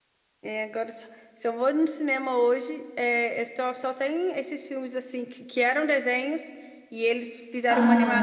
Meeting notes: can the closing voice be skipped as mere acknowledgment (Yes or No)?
Yes